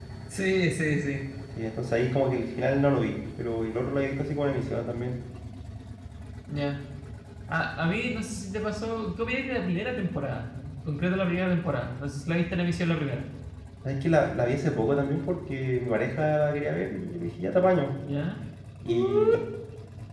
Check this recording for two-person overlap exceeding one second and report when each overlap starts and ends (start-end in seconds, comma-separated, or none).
none